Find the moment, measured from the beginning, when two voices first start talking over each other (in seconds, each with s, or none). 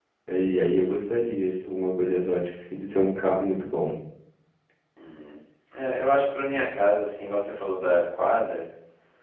none